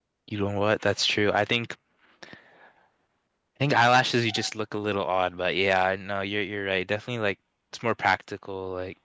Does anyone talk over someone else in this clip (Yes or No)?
No